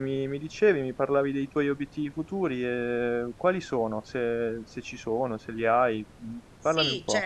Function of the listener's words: taking over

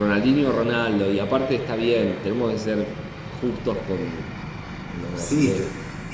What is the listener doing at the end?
taking over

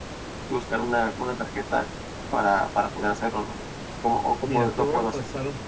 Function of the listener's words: taking over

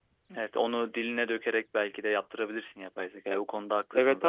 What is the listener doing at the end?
taking over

